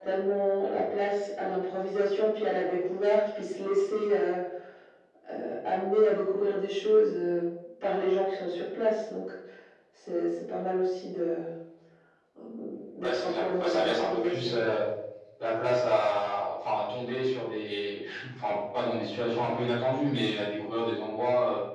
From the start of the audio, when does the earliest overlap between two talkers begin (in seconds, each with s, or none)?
13.0 s